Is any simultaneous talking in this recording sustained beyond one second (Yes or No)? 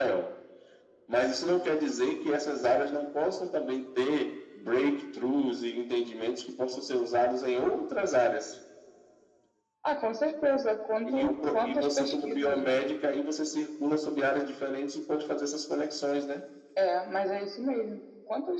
Yes